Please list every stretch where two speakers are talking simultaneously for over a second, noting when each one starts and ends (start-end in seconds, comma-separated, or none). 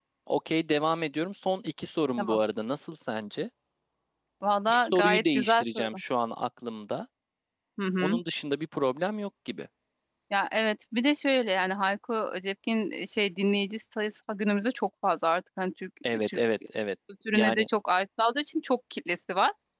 4.7-6.0